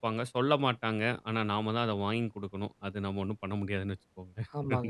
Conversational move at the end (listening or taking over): taking over